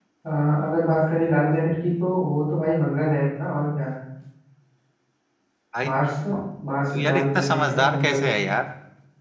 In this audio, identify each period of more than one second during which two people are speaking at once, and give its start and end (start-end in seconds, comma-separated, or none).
7.0-8.3